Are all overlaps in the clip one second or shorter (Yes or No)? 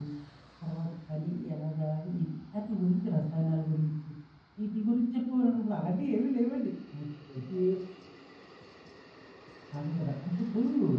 Yes